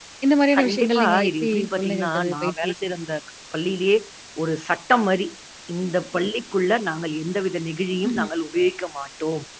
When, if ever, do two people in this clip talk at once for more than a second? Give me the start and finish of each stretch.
0.6-2.9

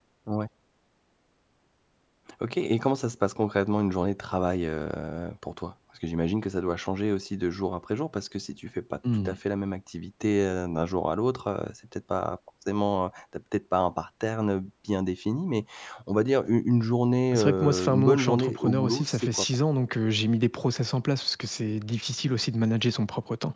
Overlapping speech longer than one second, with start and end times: 17.3-19.4

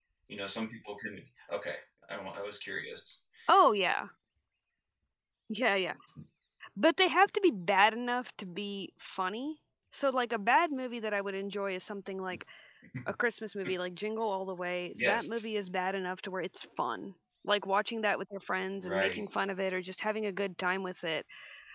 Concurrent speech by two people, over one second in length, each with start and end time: none

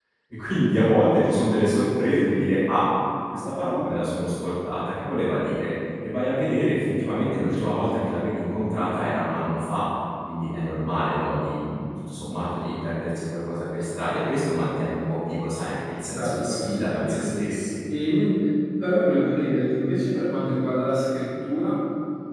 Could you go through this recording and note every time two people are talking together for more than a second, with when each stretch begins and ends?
16.1-17.4

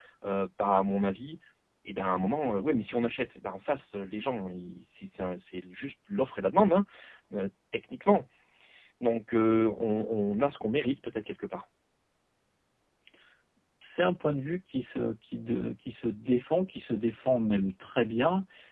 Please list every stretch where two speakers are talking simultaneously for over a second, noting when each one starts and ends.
none

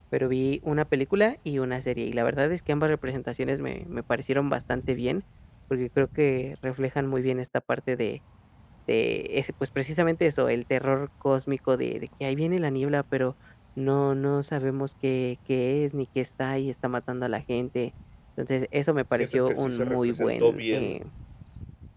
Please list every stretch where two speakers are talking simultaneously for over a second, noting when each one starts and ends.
19.2-21.0

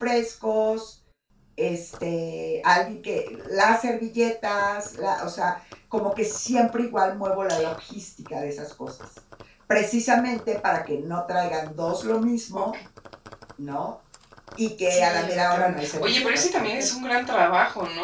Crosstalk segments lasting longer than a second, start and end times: 14.9-16.9

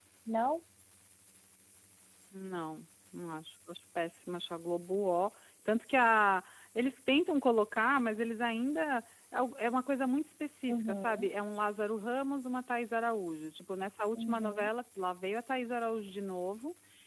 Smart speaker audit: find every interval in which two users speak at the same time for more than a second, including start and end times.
none

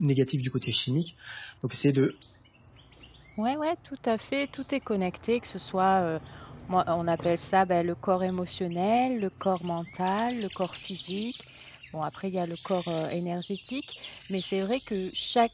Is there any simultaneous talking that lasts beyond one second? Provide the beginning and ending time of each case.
none

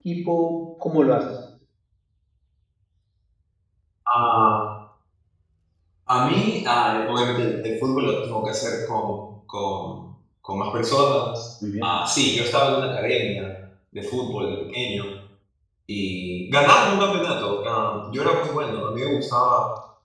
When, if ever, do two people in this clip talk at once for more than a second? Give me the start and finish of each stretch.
none

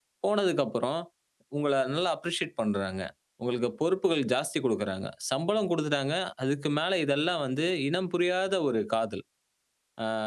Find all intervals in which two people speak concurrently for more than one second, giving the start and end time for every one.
none

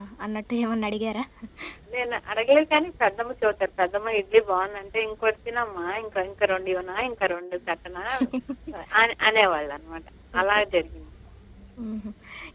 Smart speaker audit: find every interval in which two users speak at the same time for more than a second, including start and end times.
none

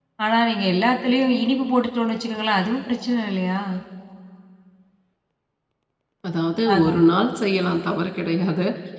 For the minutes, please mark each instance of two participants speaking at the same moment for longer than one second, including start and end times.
none

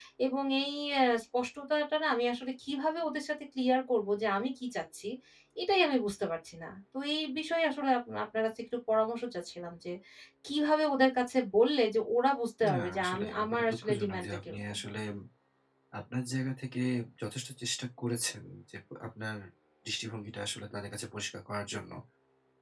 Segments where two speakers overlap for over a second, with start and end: 12.7-14.8

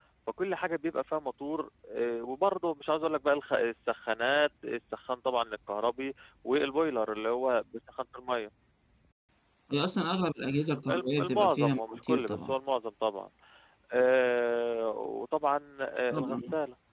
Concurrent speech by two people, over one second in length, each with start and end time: 10.9-12.5

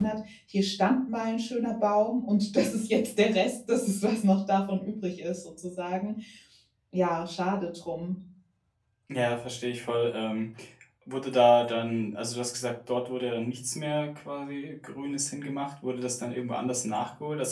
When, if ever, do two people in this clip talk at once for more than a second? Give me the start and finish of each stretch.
none

